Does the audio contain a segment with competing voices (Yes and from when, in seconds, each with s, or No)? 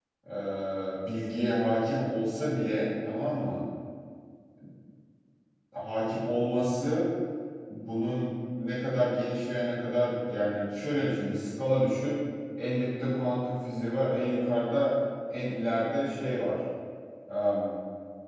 No